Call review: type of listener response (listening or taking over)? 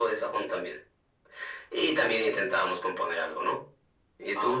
taking over